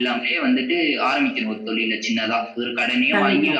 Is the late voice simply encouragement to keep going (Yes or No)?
Yes